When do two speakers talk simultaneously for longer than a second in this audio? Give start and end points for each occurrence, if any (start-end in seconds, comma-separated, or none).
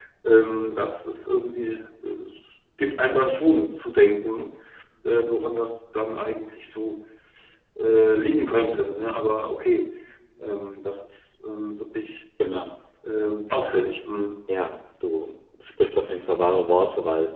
none